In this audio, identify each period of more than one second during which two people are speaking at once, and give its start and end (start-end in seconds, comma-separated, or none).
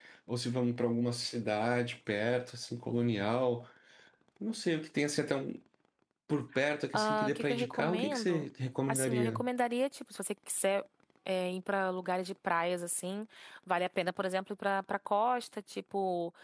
6.9-8.5